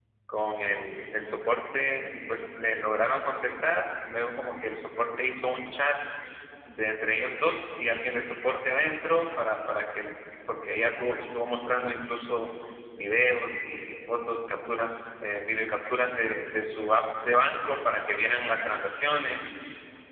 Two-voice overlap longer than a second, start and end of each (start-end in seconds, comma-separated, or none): none